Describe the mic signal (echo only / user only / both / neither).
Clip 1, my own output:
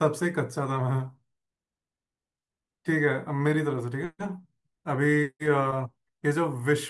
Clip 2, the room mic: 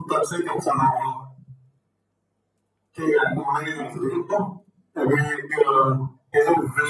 echo only